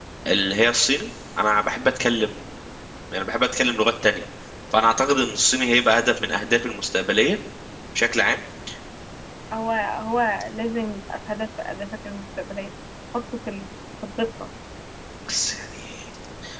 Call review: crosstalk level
none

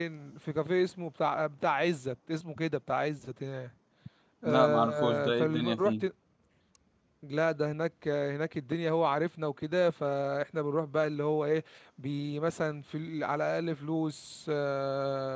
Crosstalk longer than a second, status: present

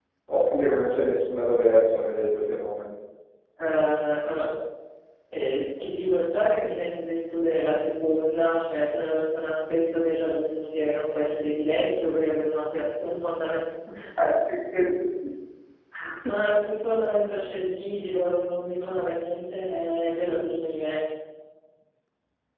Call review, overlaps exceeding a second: none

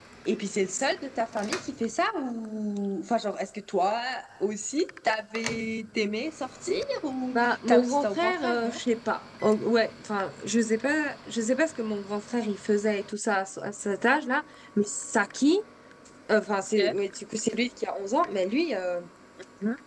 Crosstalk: present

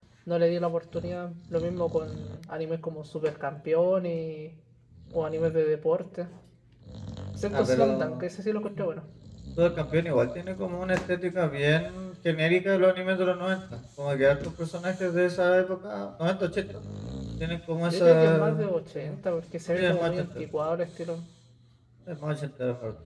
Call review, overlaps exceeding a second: present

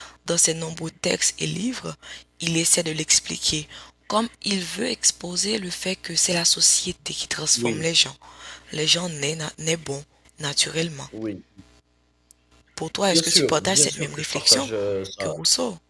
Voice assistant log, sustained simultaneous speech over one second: present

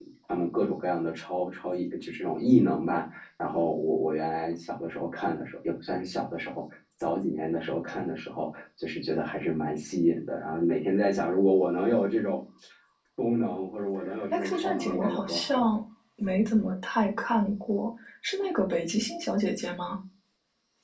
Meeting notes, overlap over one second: present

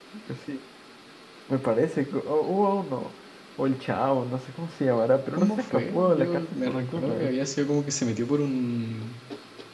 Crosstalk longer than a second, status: present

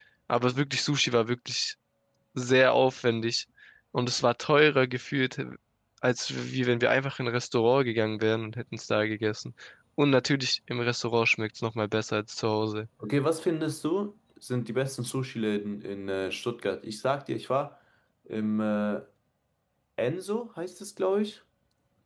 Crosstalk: none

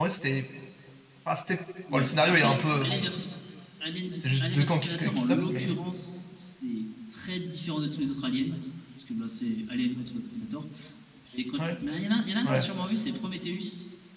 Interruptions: present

